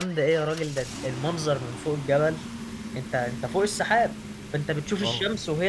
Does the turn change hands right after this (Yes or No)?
No